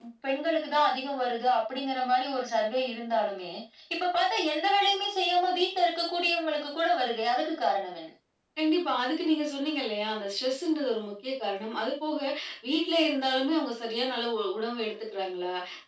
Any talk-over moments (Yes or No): No